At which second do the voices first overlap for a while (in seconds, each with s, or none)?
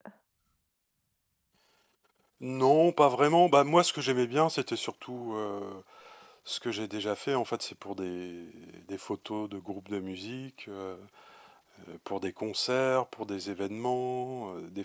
none